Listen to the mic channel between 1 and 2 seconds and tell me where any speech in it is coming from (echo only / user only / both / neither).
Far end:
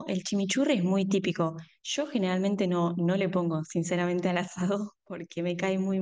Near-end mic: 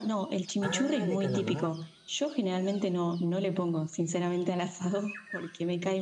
both